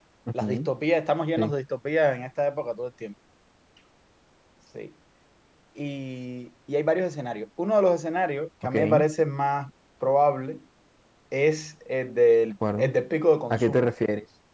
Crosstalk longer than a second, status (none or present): none